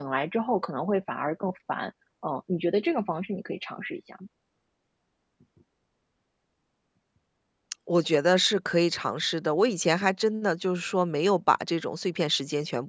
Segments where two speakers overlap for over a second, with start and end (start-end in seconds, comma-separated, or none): none